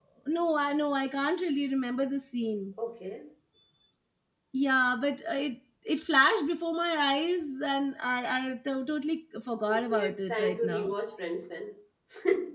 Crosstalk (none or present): present